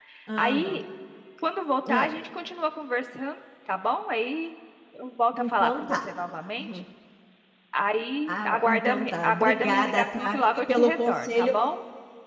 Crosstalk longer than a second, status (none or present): present